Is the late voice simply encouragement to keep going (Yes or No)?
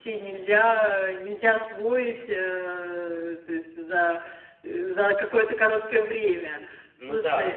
Yes